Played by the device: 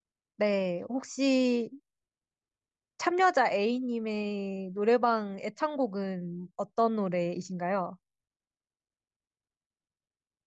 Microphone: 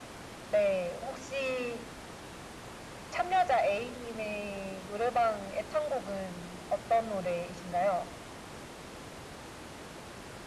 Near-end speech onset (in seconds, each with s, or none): none